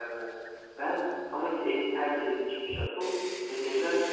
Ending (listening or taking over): listening